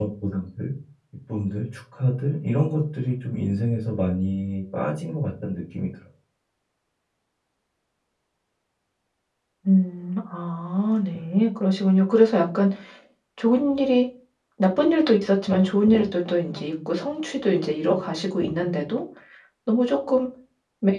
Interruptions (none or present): none